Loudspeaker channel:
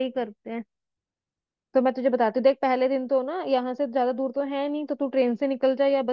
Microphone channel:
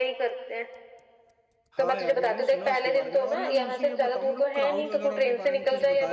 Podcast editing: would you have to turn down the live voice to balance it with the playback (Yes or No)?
No